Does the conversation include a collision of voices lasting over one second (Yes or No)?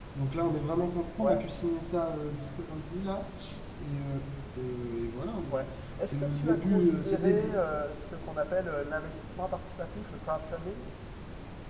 Yes